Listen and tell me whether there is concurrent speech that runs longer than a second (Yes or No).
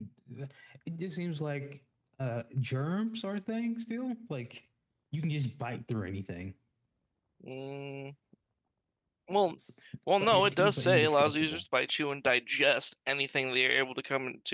Yes